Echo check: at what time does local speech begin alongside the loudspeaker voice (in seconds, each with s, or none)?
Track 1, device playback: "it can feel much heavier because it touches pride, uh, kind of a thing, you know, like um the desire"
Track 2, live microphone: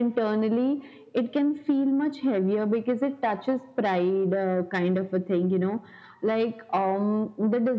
none